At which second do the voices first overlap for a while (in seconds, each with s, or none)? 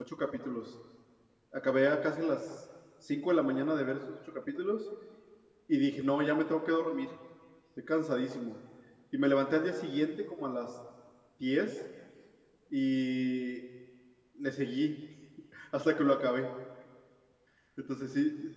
none